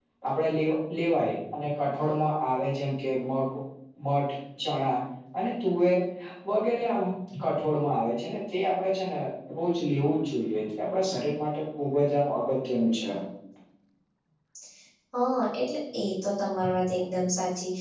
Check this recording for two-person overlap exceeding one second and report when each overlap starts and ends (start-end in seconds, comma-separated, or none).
none